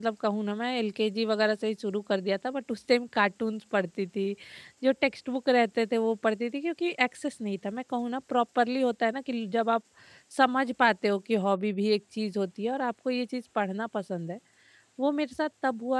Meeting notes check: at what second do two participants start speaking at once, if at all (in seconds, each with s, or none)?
none